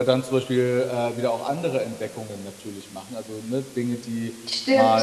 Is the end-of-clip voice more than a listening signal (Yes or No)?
Yes